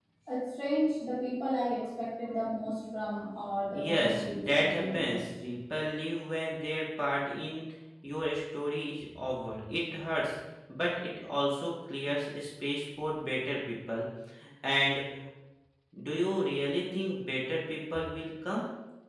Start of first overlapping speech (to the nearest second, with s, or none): 4 s